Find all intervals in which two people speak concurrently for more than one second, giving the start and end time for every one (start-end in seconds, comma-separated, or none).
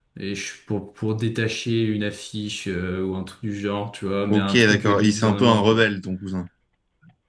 4.3-5.9